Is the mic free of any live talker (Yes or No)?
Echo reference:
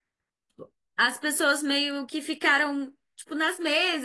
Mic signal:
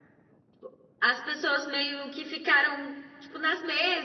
Yes